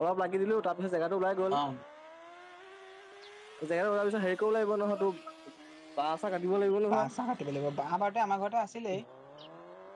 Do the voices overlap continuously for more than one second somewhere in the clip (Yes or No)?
No